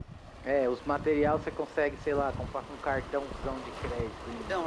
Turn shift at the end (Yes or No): Yes